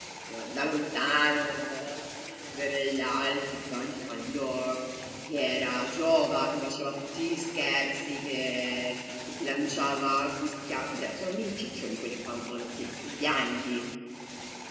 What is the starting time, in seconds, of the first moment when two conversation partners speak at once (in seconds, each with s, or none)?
none